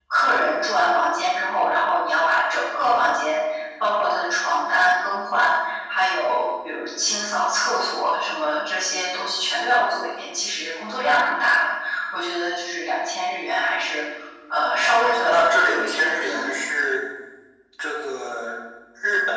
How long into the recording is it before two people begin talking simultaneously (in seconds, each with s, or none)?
14.8 s